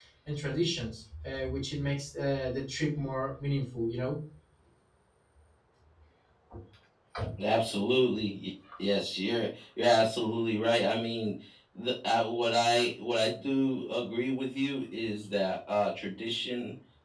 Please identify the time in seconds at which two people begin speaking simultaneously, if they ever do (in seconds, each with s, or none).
none